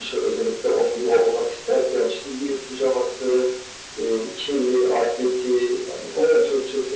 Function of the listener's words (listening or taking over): listening